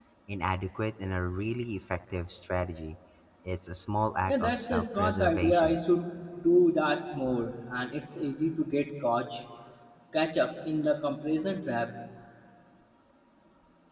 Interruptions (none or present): present